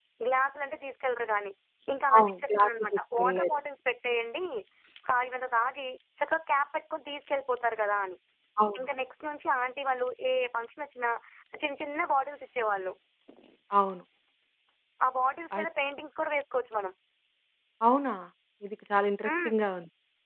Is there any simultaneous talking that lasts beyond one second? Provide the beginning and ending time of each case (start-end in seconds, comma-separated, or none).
2.2-3.5